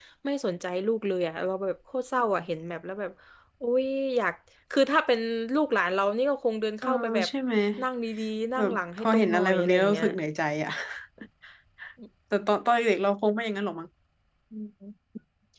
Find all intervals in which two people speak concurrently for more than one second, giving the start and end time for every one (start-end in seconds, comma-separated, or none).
8.6-10.1